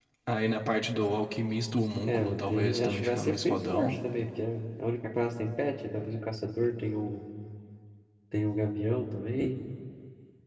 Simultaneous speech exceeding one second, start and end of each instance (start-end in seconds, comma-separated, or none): 2.0-4.0